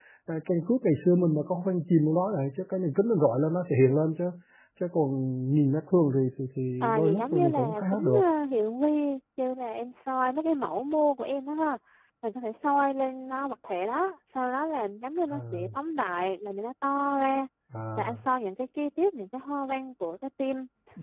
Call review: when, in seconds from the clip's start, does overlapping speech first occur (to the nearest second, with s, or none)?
7 s